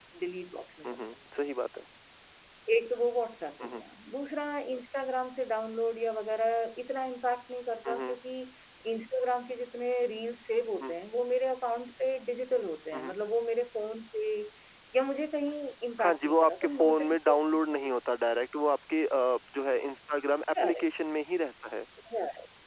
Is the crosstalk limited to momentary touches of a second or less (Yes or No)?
No